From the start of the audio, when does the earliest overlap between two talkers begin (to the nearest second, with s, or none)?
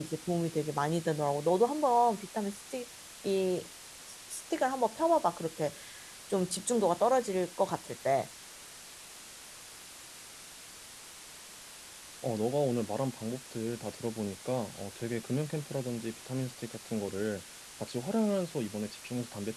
none